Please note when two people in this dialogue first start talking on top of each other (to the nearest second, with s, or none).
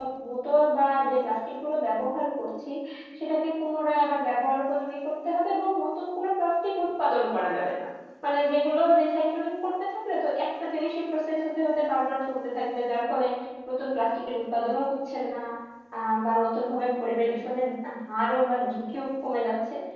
none